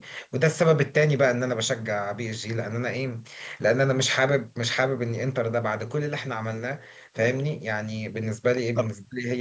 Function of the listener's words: taking over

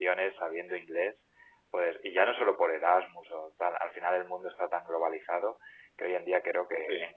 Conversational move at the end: listening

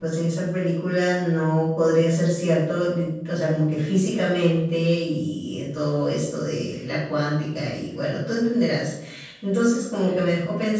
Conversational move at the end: listening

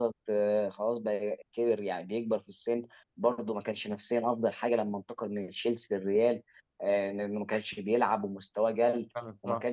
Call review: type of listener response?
listening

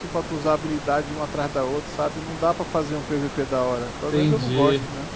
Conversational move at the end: taking over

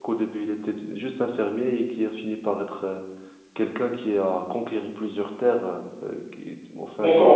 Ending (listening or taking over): taking over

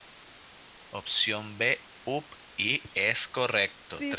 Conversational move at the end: taking over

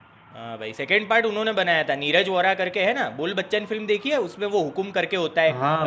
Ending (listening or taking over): taking over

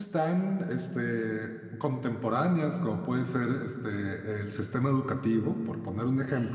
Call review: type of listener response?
listening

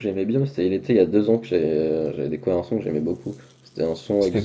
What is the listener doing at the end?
listening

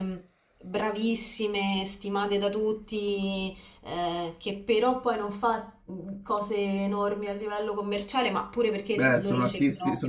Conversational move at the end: taking over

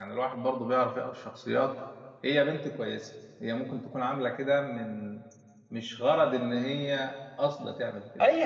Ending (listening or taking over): taking over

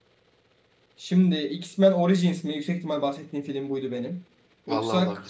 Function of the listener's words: listening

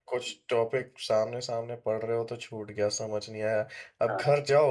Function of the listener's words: listening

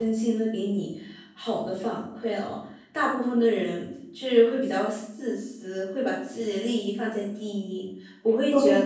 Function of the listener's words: taking over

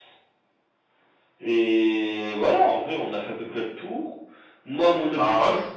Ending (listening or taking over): listening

